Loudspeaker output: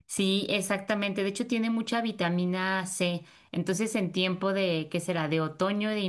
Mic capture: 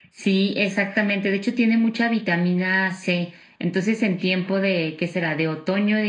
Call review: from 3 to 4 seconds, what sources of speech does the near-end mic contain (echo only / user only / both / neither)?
echo only